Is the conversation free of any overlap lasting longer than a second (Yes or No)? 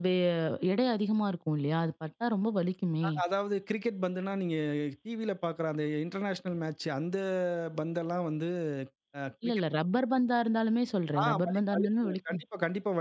No